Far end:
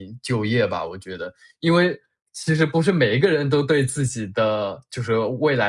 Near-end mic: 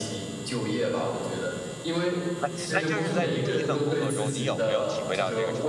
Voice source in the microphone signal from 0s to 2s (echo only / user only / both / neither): echo only